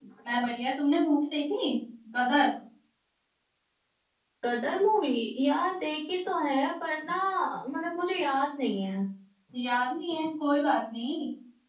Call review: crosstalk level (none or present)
none